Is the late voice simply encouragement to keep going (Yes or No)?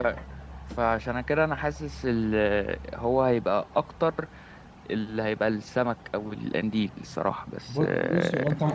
No